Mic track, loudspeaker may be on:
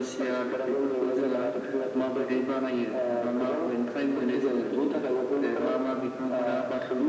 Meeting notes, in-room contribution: none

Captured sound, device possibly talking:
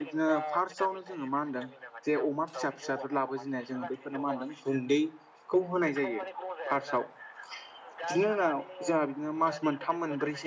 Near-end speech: present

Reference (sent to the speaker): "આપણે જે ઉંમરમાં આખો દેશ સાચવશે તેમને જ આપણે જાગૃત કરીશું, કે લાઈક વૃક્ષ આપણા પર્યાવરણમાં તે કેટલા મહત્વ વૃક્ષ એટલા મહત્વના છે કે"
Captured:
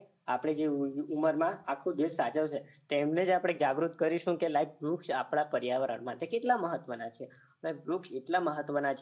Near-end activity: none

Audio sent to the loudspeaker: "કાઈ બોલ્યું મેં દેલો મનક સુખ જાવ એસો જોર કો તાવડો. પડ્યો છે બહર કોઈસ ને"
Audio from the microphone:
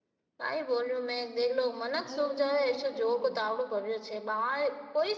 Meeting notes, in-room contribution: present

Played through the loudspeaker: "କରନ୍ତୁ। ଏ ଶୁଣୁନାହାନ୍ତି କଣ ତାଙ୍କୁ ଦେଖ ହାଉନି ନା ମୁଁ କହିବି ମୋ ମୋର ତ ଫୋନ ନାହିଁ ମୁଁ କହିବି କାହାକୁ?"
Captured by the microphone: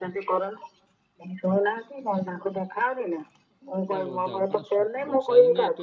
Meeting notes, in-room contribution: present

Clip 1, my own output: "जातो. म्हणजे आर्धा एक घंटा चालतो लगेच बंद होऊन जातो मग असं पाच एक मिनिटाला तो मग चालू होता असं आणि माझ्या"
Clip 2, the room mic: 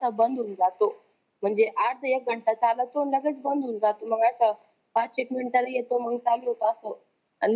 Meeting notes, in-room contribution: none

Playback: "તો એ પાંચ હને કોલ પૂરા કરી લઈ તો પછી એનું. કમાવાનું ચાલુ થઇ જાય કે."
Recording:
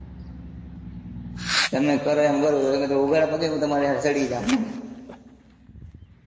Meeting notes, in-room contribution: present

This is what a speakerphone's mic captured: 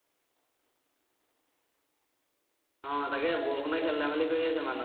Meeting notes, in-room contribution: present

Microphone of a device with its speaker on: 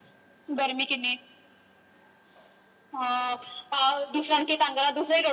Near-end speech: none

